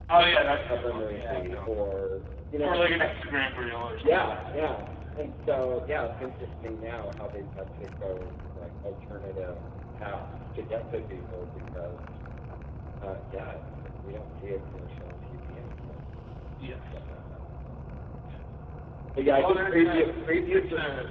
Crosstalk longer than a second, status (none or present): present